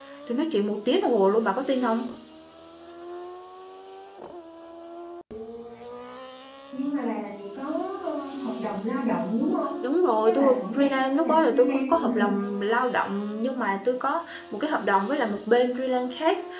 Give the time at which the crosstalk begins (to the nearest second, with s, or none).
10 s